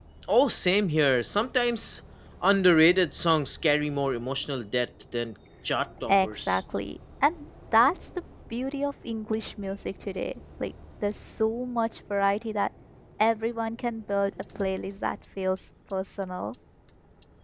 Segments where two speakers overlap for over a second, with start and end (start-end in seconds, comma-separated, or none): none